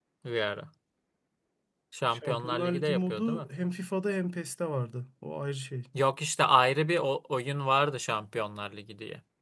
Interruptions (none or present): present